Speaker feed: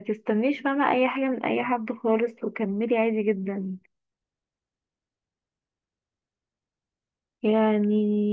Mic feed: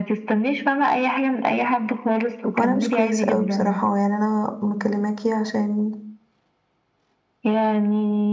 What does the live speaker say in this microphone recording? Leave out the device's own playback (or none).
هو أنا مش كويسة أوي بصراحة يعني أنا مكلماكي عشان